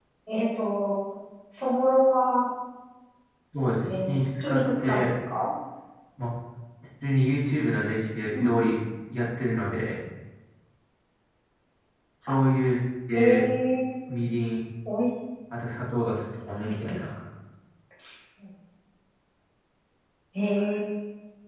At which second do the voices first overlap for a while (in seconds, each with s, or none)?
3.8 s